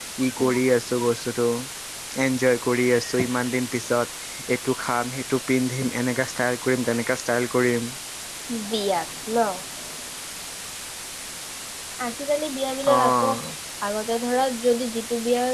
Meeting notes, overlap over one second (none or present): none